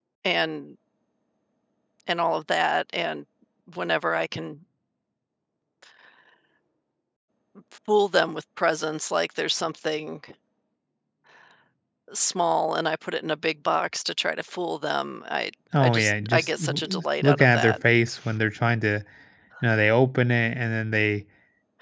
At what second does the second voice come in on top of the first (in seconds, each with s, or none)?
15.7 s